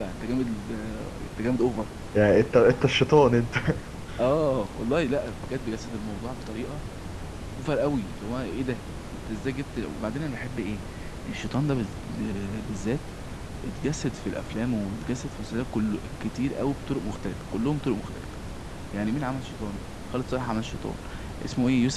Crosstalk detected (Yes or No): No